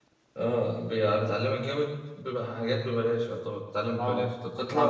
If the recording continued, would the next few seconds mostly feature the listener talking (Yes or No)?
Yes